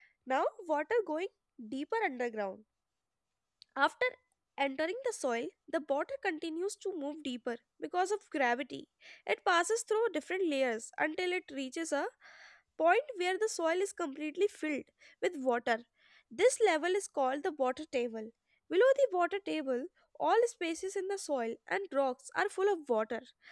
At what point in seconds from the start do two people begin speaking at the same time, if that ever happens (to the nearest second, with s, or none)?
none